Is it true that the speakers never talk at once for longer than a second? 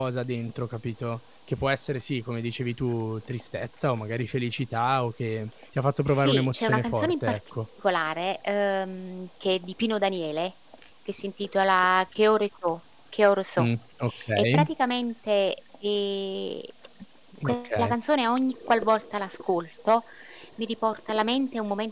No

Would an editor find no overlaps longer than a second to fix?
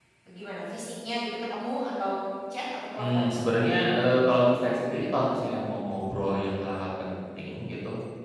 Yes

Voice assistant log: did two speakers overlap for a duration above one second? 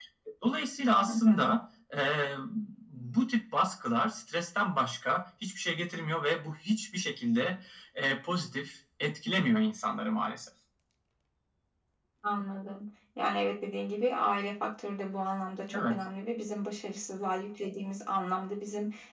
No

